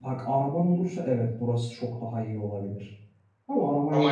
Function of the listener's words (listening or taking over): listening